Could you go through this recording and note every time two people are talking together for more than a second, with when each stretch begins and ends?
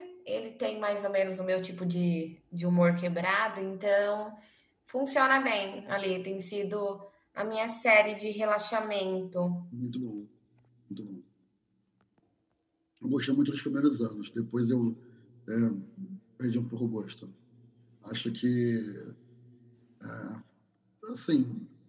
none

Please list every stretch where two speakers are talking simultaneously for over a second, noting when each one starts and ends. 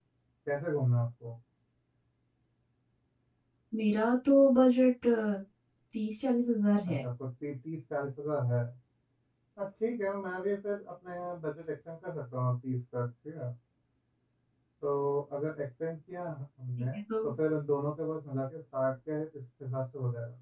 none

